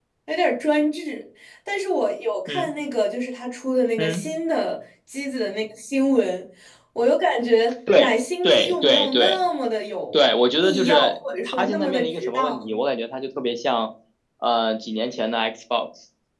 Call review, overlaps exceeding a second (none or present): present